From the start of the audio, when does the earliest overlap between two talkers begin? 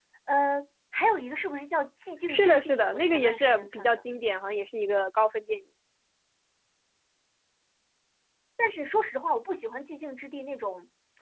2 s

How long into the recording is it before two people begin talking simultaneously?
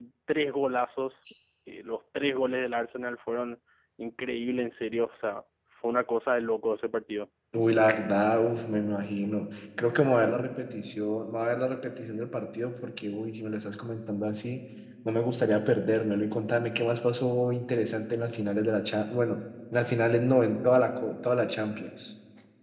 none

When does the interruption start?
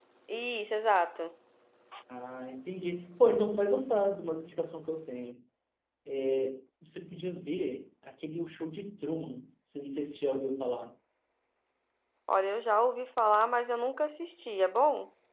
none

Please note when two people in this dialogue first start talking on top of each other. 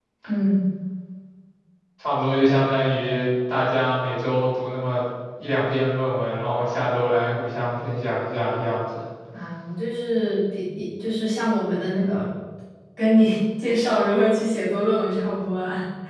none

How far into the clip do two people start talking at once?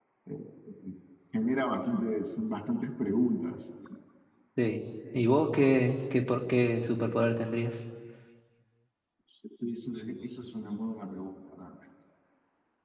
none

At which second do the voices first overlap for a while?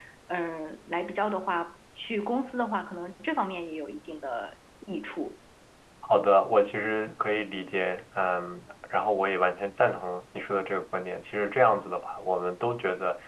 none

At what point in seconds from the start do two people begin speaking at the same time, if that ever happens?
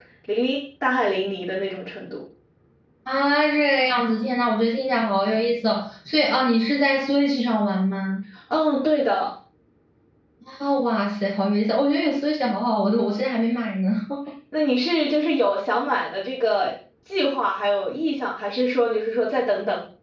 none

